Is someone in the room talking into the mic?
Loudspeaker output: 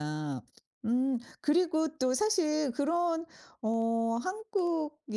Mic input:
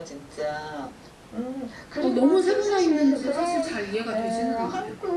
Yes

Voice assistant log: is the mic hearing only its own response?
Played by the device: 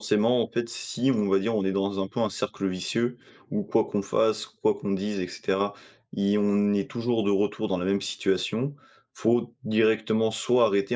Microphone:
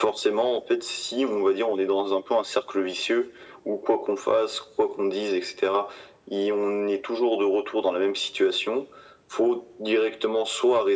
Yes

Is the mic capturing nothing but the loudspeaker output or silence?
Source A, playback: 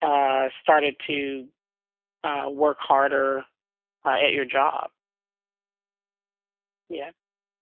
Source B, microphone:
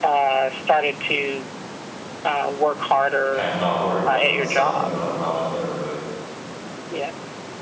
No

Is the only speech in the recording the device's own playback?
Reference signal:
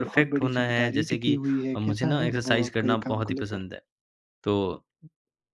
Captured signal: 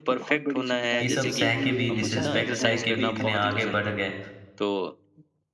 No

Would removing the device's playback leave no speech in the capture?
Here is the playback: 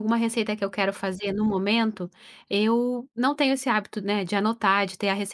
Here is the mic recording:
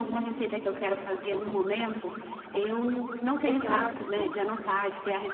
No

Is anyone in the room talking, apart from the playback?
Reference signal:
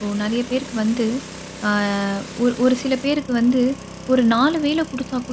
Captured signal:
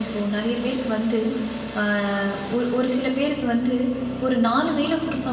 No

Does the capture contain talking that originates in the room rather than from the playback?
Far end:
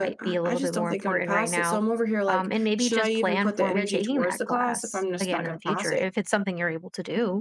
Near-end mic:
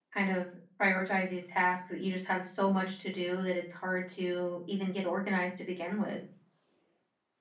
Yes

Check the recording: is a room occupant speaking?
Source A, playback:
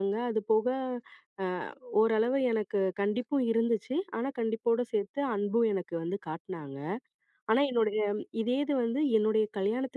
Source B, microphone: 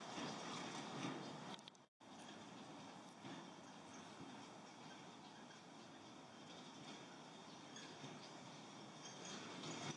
No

